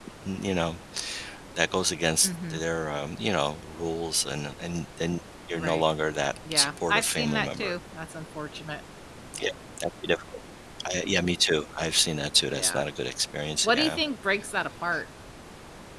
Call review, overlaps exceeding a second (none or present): present